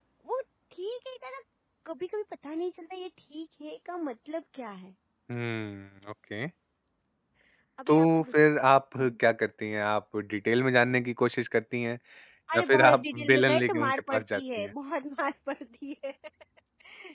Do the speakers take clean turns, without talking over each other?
No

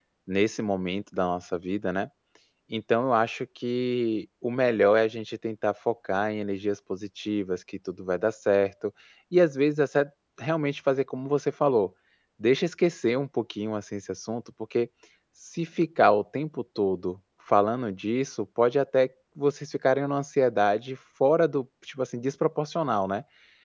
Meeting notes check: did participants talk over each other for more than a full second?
No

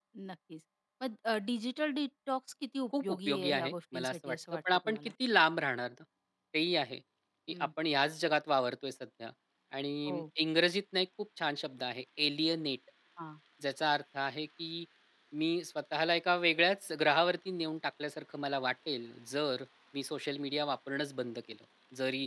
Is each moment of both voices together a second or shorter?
No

